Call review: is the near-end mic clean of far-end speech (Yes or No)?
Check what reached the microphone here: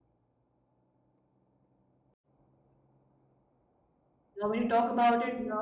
Yes